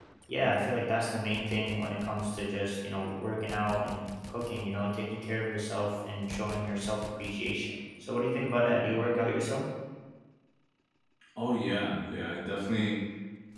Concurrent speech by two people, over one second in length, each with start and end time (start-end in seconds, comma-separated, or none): none